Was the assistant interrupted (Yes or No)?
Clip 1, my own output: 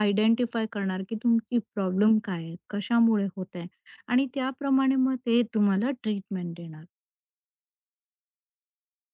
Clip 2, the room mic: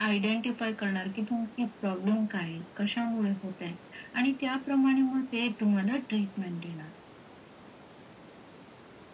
No